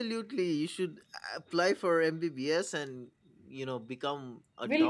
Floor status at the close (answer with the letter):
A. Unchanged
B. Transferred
B